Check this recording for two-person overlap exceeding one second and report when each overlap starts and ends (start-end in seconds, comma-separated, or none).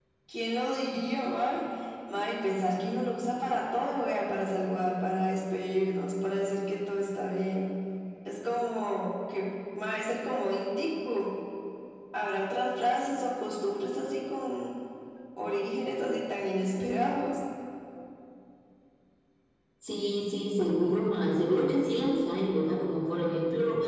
none